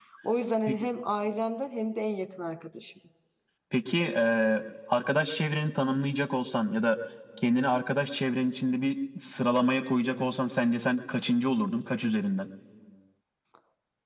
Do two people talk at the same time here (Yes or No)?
No